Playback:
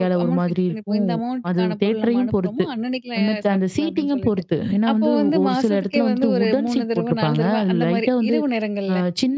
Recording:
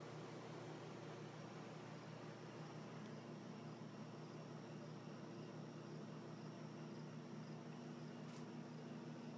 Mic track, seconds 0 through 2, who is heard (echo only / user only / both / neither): neither